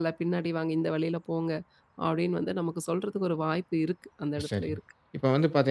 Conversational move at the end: taking over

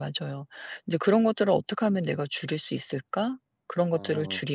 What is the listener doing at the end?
listening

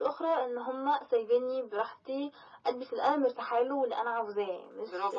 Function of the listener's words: taking over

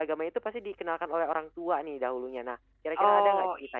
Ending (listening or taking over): taking over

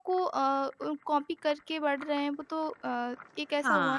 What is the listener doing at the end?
taking over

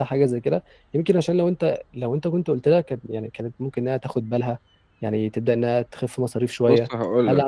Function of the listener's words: taking over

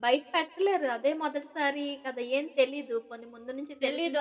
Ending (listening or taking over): taking over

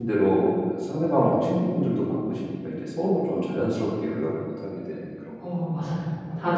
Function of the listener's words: taking over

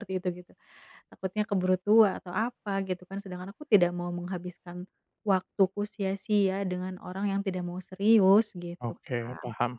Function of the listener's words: taking over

